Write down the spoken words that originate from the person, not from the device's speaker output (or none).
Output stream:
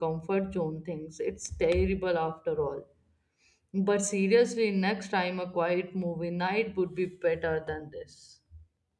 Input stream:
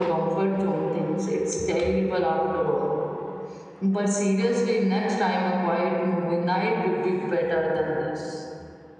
none